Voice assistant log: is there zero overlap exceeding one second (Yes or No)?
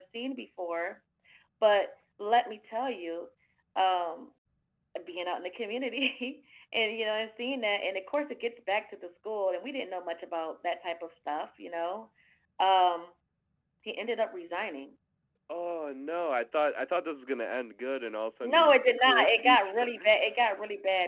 No